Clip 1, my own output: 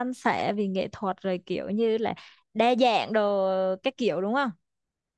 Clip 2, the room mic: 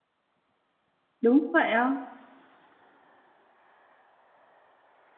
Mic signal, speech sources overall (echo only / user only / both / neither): user only